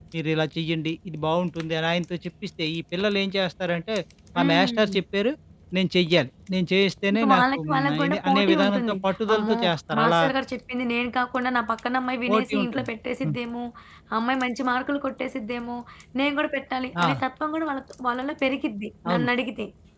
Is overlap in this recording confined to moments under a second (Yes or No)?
No